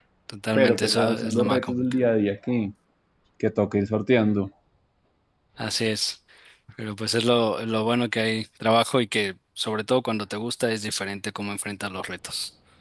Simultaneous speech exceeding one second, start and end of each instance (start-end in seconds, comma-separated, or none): 0.6-1.8